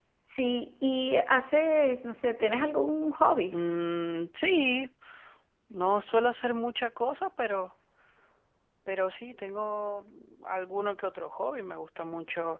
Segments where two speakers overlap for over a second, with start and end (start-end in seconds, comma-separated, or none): none